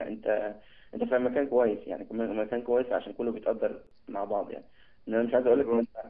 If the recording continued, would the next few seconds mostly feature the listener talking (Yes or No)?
No